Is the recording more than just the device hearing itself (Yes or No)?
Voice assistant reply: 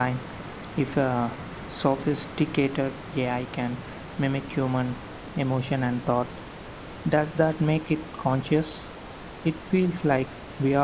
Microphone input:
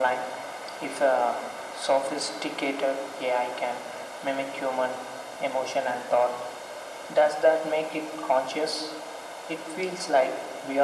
No